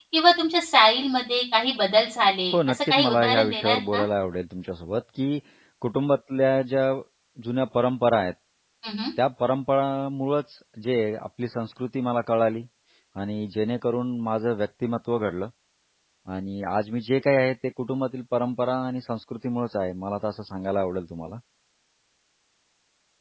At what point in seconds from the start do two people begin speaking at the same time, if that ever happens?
3 s

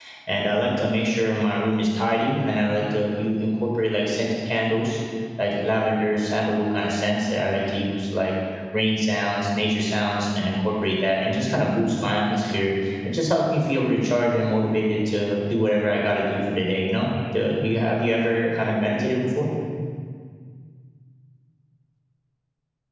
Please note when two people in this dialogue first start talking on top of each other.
none

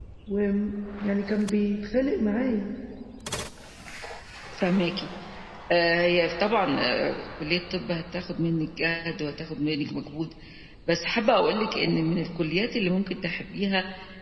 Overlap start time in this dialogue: none

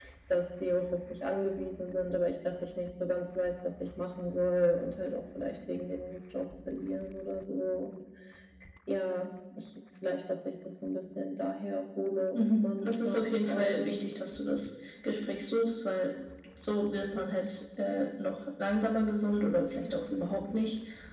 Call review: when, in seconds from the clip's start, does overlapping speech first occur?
12 s

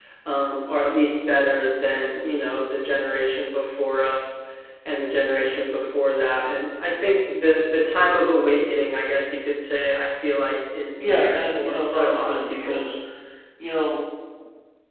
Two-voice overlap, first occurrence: 11 s

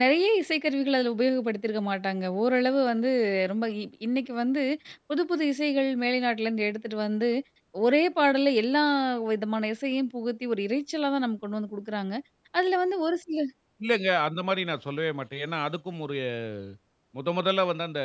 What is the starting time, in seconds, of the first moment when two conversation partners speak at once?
none

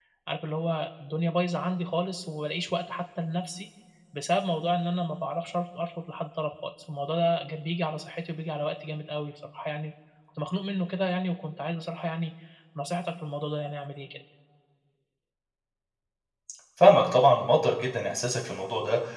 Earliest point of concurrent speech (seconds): none

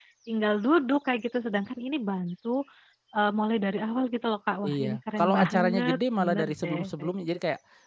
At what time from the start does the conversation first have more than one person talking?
5 s

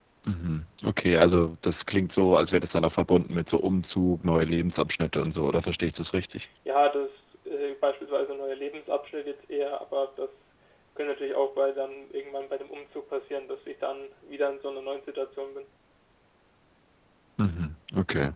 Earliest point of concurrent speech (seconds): none

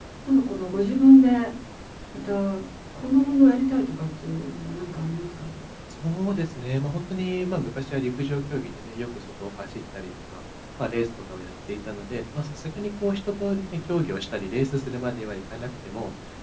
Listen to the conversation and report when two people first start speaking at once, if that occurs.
none

